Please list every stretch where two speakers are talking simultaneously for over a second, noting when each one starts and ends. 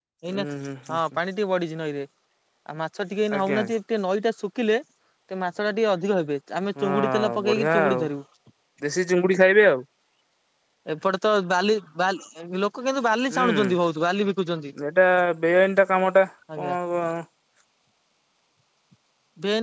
6.8-8.0

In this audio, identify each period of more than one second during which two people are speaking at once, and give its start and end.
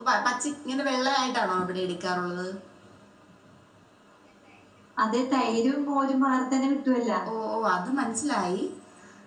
none

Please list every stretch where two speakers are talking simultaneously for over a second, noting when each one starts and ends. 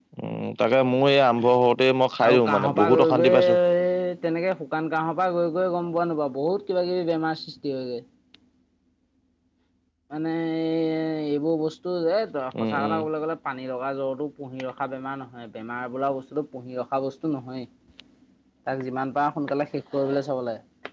2.3-3.6

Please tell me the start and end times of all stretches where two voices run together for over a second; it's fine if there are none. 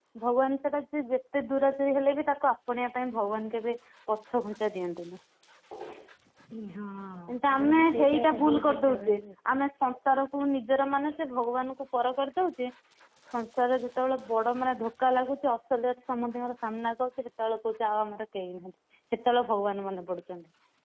7.5-9.2

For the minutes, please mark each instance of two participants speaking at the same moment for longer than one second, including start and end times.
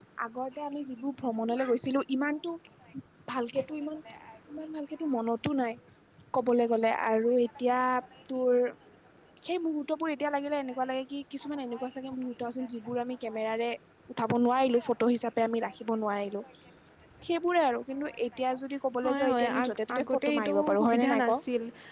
19.0-21.4

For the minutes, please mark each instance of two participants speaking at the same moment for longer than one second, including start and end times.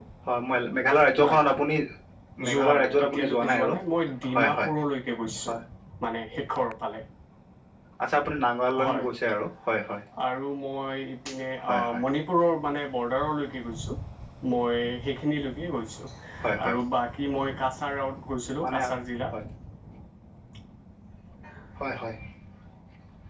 2.5-3.7

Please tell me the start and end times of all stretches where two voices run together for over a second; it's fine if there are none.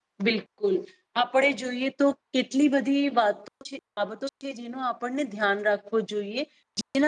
none

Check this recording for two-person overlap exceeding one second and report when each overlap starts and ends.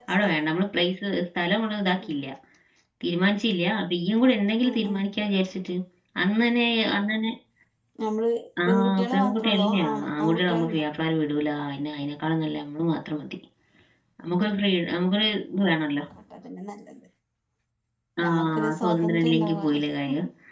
8.7-10.8, 18.2-19.8

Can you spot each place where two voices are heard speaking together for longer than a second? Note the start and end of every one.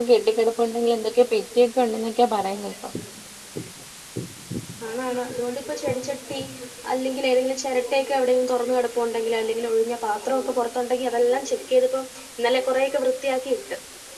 none

